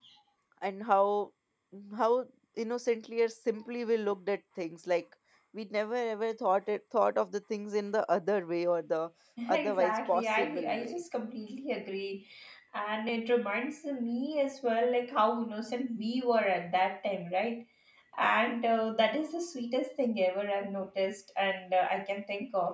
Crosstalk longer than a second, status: present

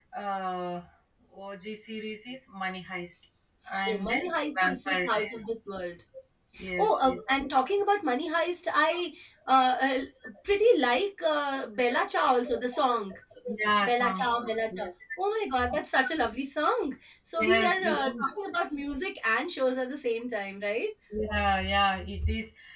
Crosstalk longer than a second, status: present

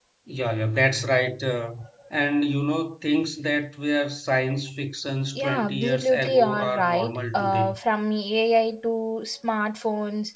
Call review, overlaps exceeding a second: present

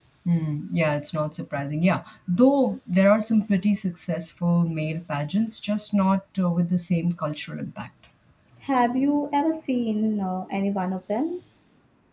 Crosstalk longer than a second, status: none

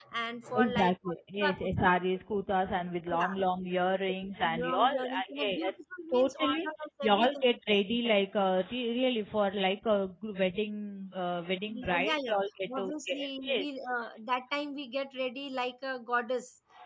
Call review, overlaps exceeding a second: present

